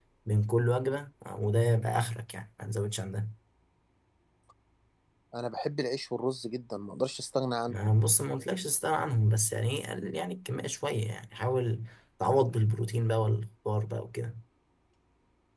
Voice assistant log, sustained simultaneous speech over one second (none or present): none